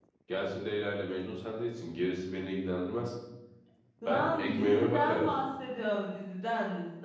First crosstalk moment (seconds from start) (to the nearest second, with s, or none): 4 s